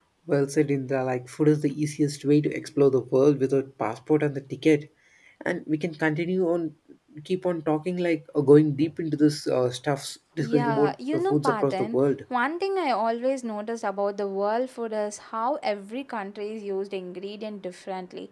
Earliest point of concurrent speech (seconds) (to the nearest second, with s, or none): 10 s